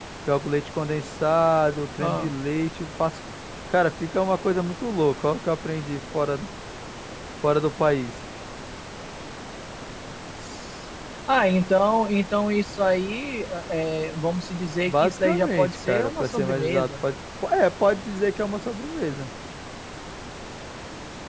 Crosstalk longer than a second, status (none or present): present